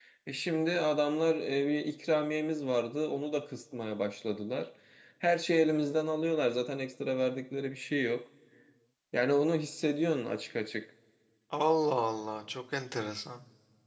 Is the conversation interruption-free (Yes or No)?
Yes